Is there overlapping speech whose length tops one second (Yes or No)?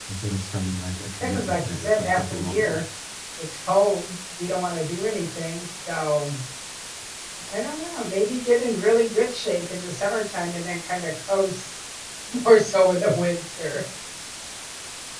Yes